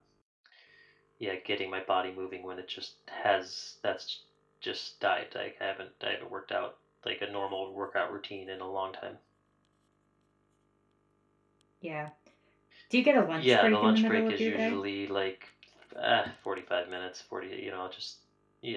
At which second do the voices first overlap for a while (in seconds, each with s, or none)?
13.3 s